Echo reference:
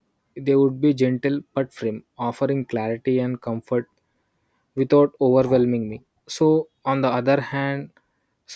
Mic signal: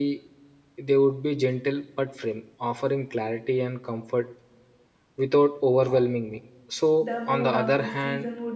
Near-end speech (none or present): present